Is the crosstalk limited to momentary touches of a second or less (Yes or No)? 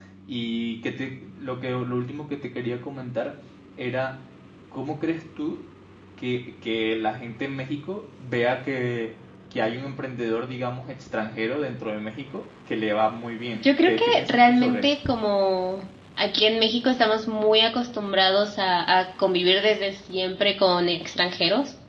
No